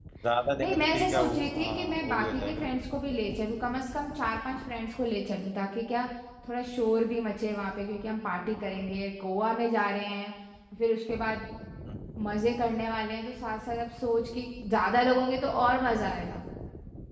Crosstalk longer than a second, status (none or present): present